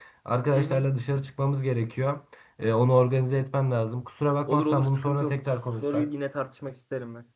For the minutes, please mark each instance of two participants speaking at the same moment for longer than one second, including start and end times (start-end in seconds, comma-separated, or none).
4.5-6.1